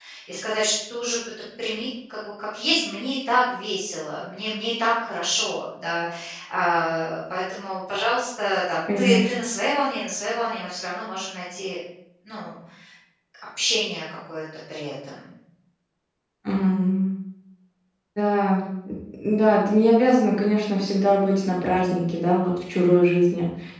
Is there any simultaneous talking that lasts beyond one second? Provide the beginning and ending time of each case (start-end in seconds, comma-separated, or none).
none